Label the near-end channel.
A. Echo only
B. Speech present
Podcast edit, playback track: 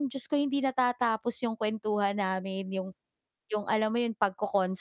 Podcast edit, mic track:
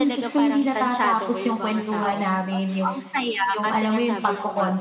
B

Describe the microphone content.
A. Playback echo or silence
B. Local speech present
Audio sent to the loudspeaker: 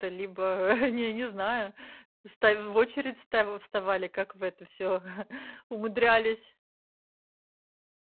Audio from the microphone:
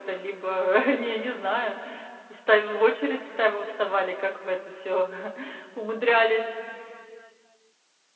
A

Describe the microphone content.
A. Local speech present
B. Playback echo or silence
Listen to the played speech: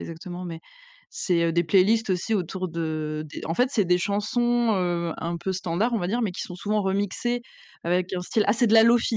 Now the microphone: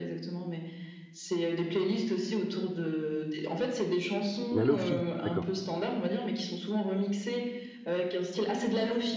A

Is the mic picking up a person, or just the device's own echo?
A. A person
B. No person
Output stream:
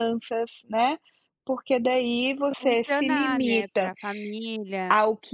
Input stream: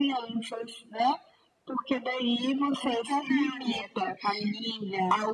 B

